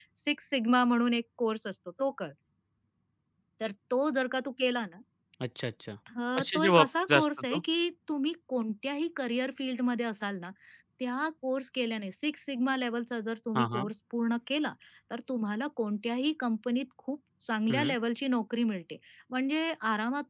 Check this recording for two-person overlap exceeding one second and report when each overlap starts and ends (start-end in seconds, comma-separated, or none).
6.4-7.6